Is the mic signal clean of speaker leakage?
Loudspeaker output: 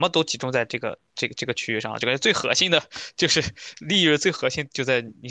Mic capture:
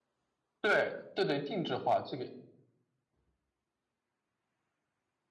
Yes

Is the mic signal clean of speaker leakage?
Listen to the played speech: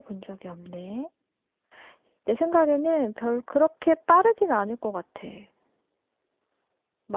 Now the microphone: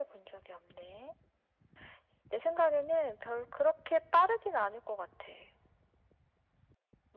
No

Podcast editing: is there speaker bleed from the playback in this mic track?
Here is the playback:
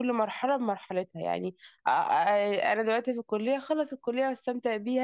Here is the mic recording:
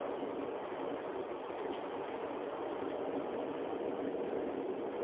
No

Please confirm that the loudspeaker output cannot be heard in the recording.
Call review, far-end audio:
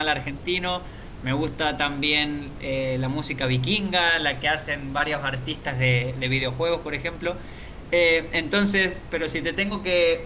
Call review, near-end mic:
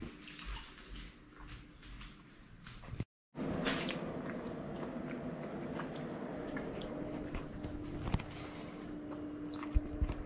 Yes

